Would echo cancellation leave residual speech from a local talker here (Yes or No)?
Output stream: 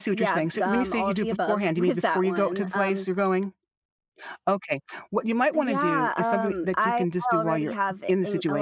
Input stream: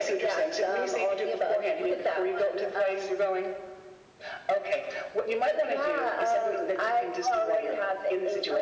No